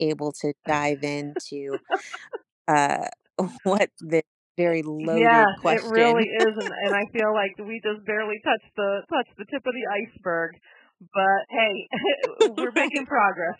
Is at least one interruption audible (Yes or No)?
Yes